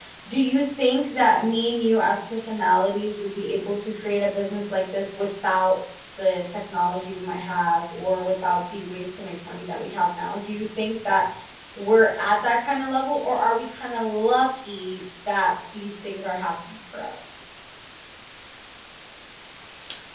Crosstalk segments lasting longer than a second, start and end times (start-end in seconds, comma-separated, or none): none